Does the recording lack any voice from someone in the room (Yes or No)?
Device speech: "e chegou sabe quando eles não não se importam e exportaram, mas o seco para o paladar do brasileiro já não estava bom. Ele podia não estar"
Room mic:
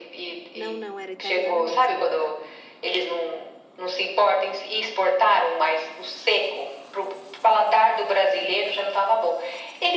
No